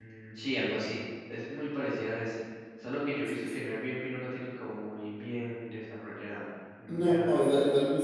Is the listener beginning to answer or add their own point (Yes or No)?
Yes